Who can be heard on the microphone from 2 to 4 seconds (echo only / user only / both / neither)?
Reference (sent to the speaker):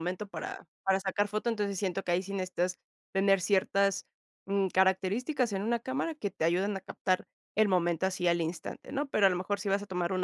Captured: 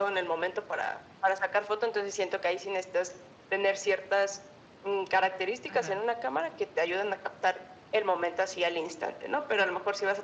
echo only